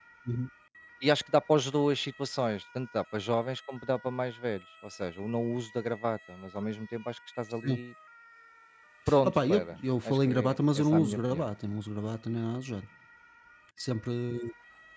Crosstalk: present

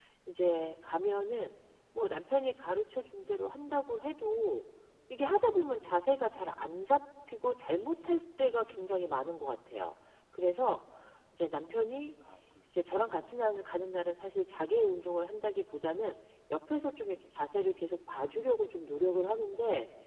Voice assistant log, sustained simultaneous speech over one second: none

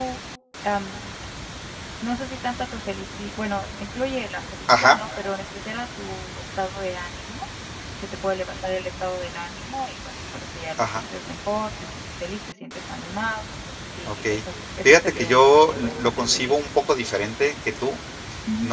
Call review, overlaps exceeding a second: present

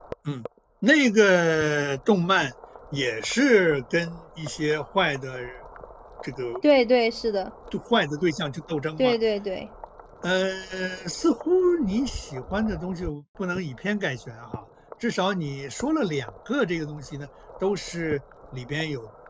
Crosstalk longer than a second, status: none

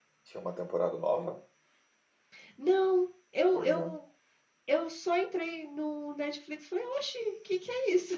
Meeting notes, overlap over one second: none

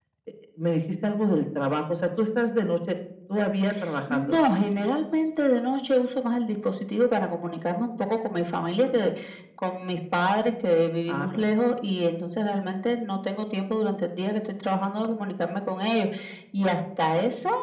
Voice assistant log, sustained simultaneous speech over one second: none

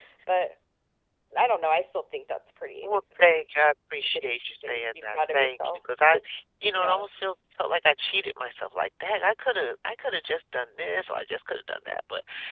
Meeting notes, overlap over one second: present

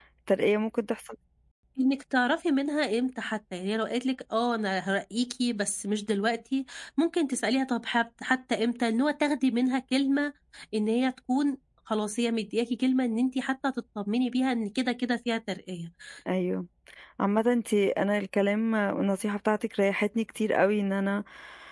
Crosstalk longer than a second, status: none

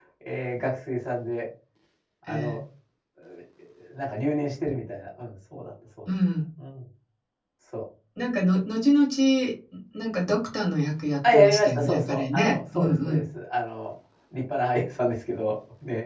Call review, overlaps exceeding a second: present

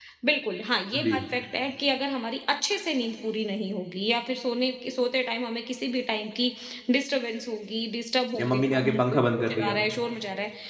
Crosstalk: present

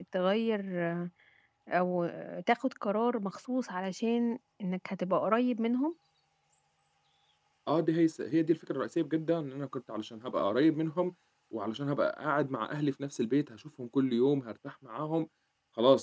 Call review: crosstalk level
none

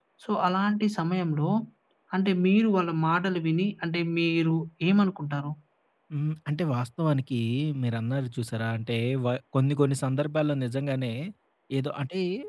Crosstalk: none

